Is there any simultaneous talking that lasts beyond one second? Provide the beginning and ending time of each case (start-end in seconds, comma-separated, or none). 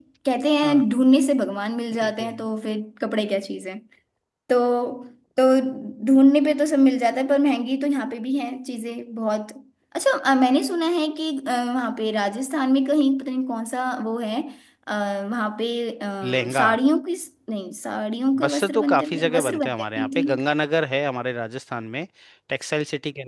18.4-20.4